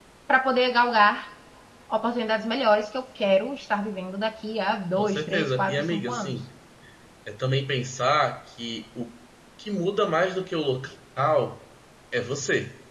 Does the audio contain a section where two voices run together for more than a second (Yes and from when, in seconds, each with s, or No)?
Yes, from 5.0 s